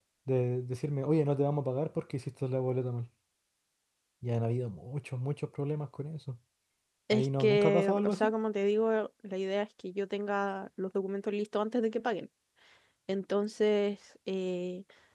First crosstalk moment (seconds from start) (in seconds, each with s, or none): 7.1 s